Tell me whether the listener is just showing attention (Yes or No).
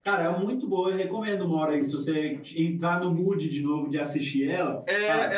No